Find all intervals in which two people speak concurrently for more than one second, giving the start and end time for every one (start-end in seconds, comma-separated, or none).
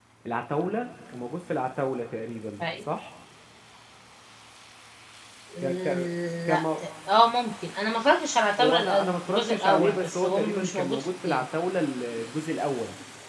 8.6-11.5